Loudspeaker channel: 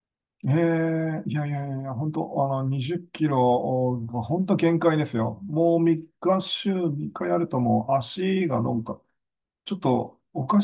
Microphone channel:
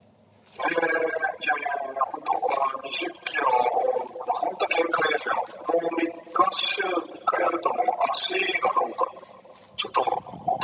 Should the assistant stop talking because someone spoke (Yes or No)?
No